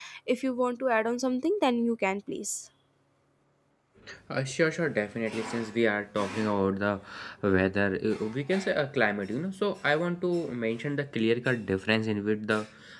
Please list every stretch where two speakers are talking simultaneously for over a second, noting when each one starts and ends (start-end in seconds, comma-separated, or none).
none